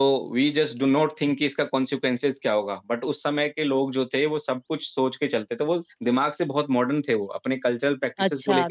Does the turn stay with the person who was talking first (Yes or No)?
No